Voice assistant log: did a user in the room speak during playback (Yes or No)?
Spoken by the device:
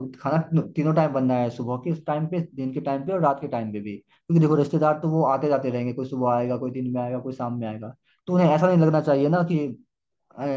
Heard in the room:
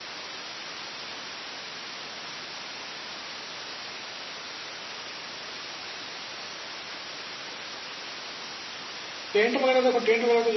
Yes